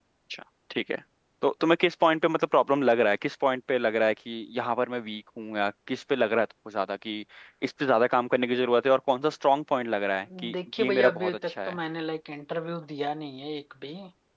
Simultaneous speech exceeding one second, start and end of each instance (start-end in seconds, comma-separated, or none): 10.5-11.8